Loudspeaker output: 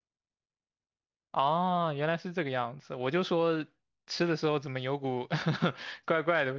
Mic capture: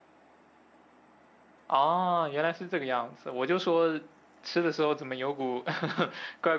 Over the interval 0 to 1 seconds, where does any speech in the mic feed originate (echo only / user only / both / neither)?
neither